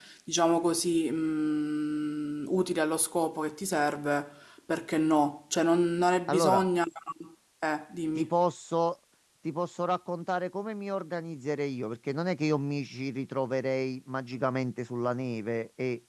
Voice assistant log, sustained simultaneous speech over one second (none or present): none